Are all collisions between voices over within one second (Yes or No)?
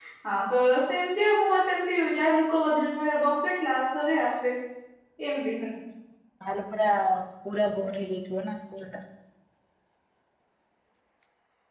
Yes